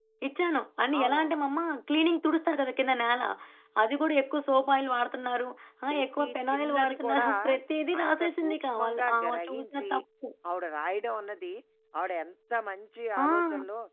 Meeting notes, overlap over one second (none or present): present